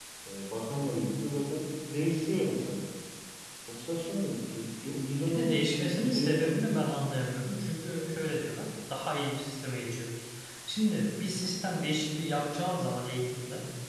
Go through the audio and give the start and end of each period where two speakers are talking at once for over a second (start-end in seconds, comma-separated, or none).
5.3-6.6